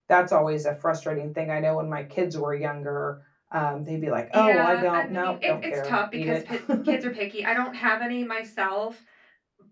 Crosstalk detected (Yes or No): Yes